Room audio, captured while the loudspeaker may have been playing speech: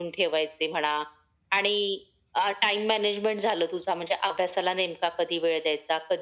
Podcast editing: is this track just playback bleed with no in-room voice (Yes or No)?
Yes